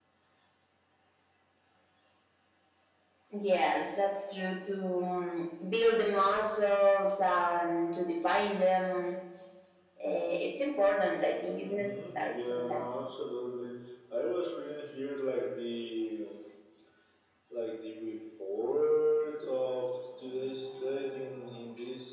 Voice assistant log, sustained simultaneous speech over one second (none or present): present